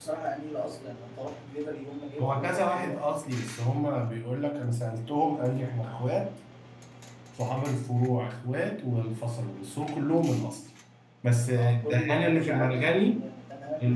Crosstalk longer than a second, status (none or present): present